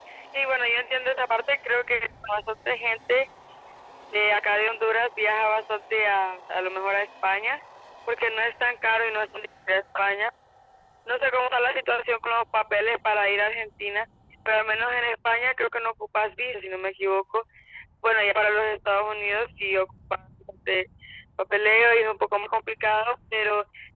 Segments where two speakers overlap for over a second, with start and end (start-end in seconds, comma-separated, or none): none